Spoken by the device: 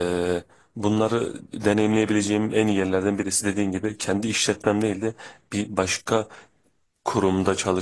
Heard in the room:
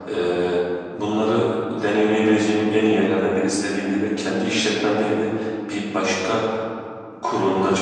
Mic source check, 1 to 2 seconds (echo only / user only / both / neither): echo only